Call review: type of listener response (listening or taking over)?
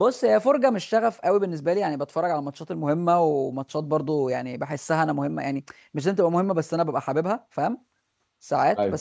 listening